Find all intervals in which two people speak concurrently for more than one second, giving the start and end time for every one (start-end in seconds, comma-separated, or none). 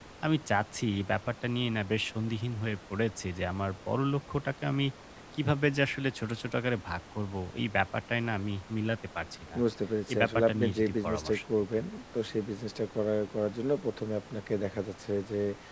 10.1-11.8